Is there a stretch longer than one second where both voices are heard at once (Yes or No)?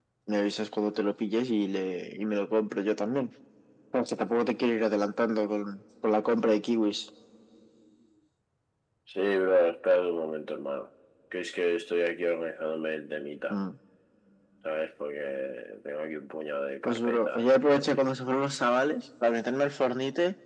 Yes